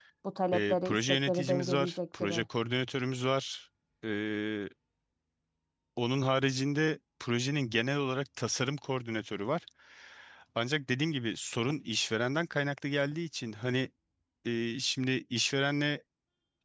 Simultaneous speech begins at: 0.5 s

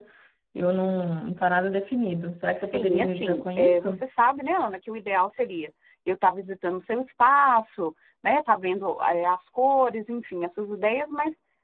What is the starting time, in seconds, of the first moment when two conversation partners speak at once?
2.7 s

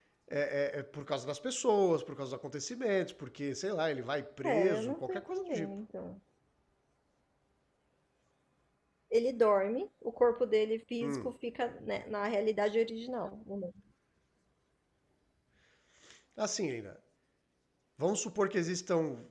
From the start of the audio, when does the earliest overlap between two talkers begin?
4.4 s

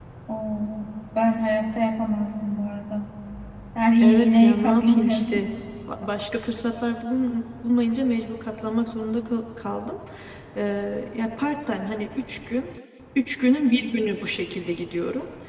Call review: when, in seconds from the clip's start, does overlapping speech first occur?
4.0 s

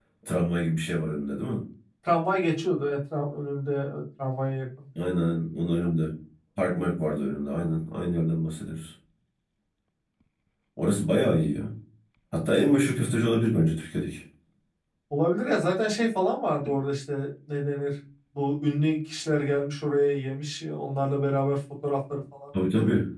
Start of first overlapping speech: none

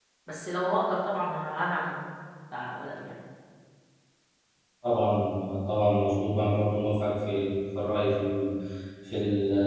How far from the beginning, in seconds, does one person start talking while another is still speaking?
none

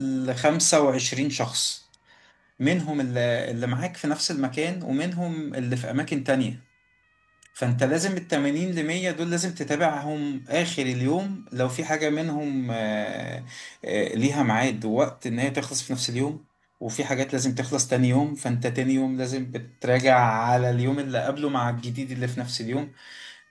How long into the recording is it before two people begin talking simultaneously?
none

